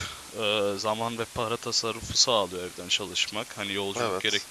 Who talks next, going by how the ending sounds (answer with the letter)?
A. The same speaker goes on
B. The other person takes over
A